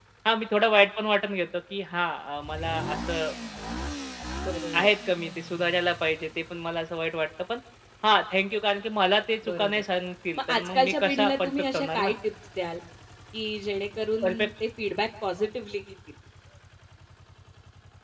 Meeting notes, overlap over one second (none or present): present